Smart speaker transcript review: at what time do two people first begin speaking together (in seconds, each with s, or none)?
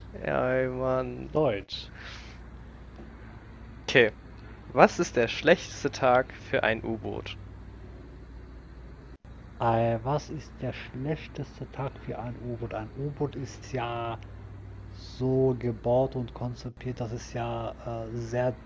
none